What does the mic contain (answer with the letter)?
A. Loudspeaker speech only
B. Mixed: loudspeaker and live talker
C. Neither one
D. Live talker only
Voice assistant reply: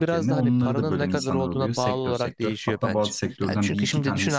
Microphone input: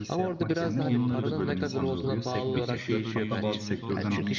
B